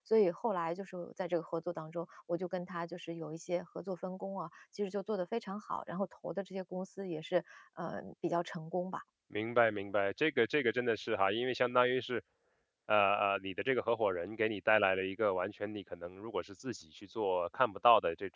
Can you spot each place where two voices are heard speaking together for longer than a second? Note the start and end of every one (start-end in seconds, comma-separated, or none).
none